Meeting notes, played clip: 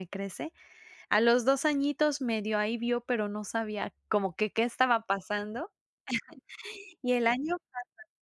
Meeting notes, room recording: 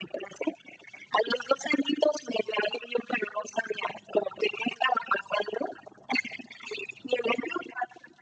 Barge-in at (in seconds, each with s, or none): none